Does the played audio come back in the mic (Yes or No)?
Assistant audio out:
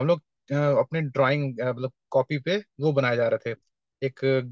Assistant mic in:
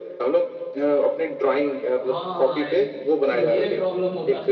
Yes